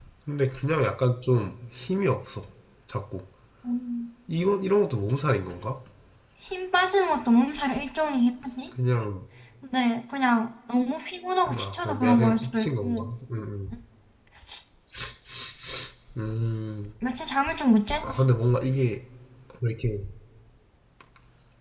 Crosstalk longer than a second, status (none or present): present